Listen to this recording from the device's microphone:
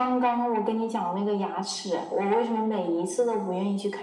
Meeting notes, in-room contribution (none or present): none